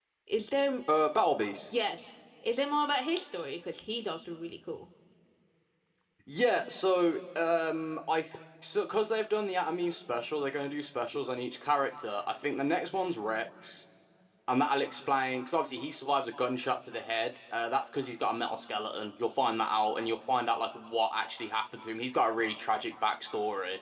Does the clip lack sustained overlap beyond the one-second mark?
Yes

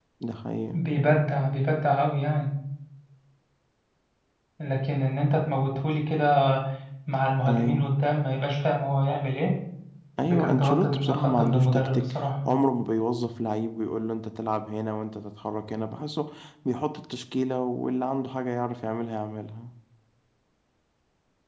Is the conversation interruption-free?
No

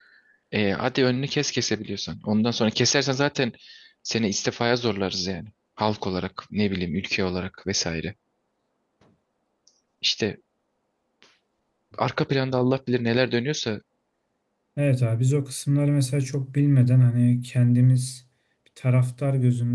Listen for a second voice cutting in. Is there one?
No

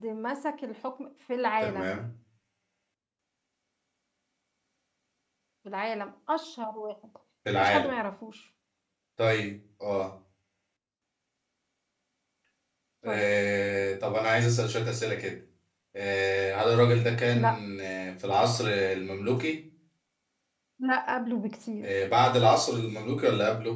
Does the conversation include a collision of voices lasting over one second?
No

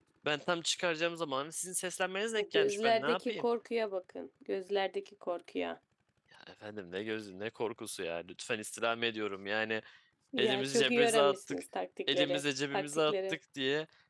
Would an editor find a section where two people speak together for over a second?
Yes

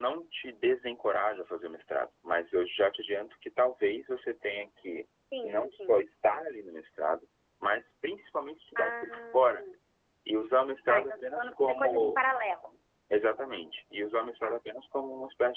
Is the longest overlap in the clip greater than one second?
Yes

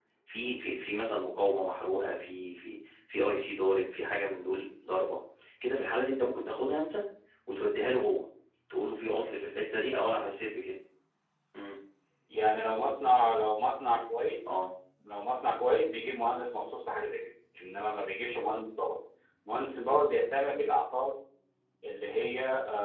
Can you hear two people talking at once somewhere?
No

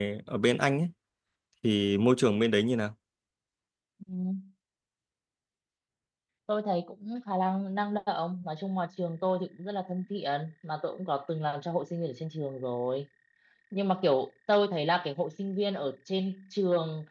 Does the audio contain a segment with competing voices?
No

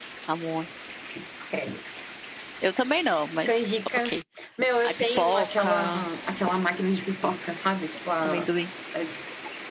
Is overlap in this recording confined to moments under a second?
No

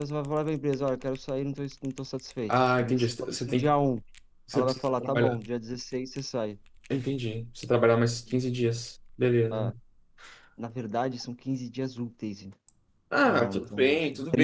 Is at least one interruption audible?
Yes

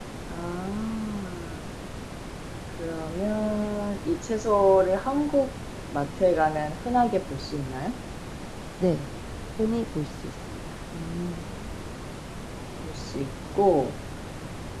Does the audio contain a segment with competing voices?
No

